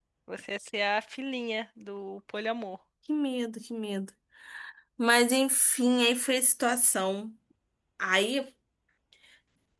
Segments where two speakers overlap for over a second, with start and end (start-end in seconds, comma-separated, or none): none